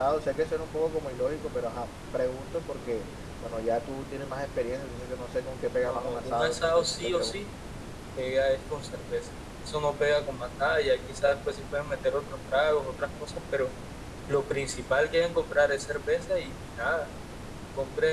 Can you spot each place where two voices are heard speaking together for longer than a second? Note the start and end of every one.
5.8-7.4

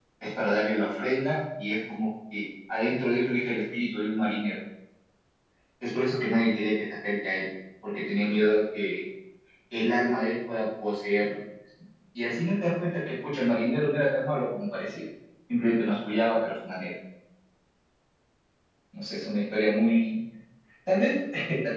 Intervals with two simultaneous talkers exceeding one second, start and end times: none

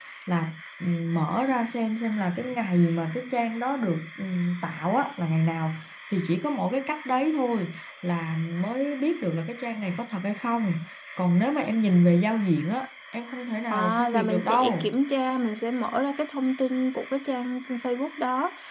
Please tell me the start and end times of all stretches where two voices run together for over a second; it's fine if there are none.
13.7-15.0

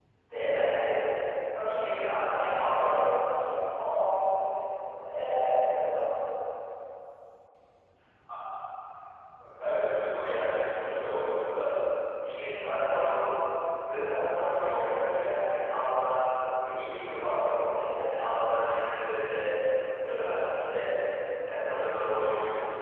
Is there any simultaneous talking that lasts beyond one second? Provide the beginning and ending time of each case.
1.7-3.1

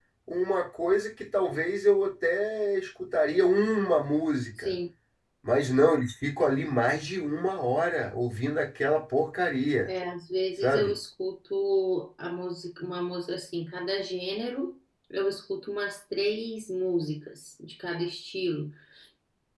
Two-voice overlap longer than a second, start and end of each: none

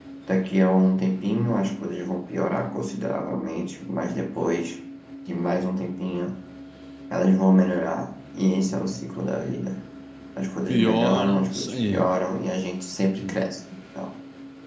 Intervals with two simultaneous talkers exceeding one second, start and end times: 10.7-12.0

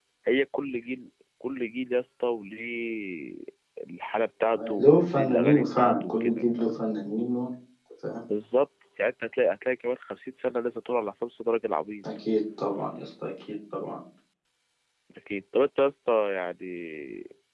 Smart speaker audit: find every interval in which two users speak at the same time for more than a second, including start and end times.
4.8-6.6

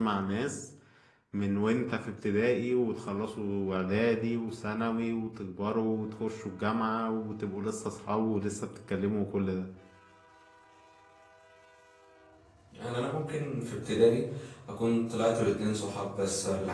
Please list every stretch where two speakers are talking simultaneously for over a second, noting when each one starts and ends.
none

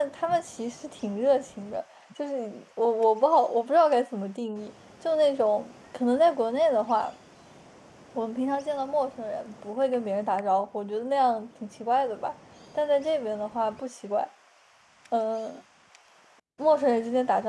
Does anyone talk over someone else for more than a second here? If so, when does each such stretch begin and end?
none

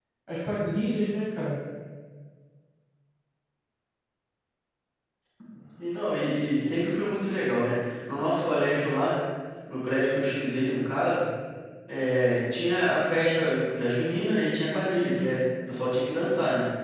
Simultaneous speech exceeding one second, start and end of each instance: none

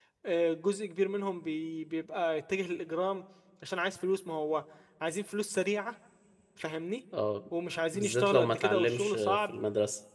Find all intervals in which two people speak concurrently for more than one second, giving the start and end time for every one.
7.9-9.6

